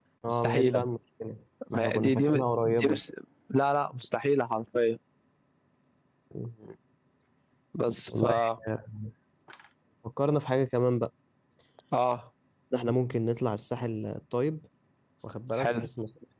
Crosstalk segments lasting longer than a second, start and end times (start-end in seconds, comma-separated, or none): 1.8-3.0